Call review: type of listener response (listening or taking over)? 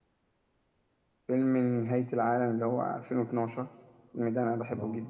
taking over